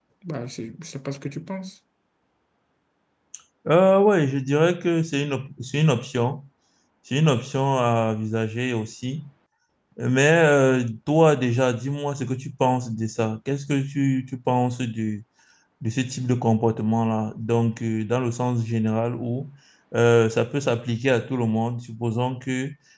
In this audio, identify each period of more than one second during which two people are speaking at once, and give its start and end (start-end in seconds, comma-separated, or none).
none